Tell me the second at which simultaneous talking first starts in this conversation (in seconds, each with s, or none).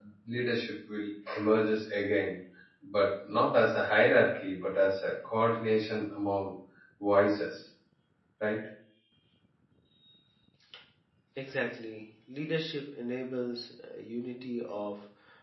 none